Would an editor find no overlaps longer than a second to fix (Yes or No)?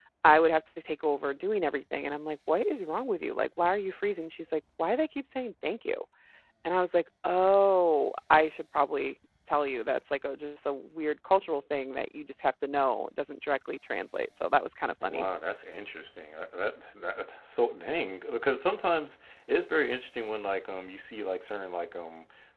Yes